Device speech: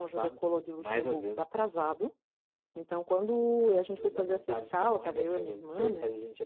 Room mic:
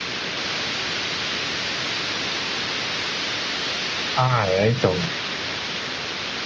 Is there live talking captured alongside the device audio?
Yes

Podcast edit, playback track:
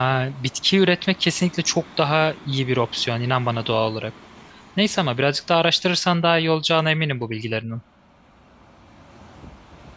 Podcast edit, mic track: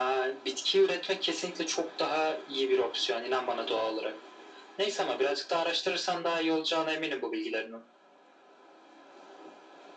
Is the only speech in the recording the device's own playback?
Yes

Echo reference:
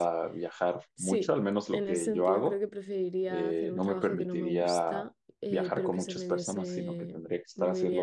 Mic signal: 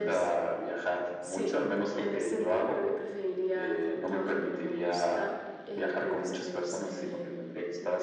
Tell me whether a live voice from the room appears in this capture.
No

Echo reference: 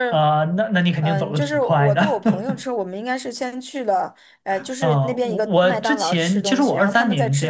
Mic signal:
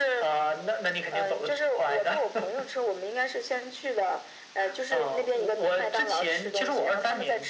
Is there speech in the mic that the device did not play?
No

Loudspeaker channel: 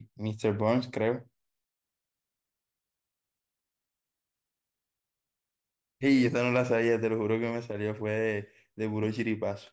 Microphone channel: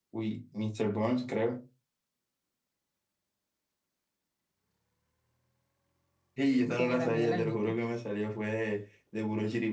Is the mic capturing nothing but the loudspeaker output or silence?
No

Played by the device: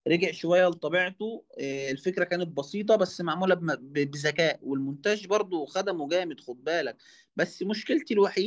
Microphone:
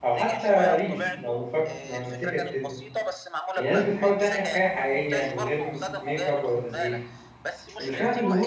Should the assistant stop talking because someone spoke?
Yes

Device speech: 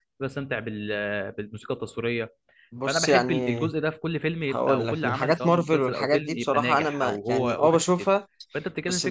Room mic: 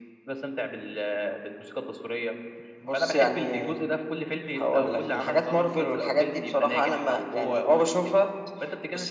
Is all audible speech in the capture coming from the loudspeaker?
Yes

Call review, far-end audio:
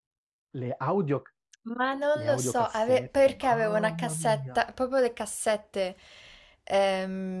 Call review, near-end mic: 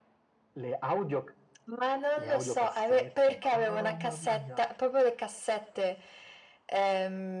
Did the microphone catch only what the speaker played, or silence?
Yes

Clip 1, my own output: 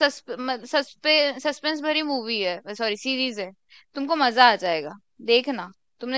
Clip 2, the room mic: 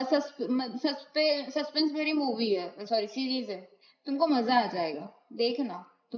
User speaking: No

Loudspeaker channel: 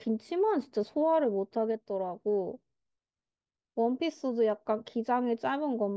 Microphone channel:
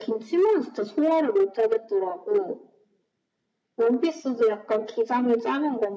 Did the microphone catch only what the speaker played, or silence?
Yes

